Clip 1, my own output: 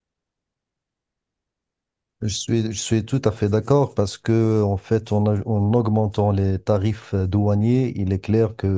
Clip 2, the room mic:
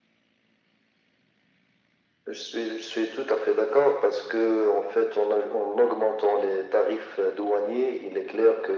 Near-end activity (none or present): none